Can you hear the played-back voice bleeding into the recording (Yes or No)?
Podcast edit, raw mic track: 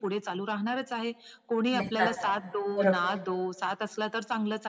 Yes